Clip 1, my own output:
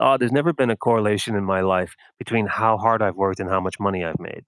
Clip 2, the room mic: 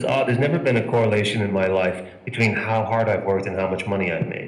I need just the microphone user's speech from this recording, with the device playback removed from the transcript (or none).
none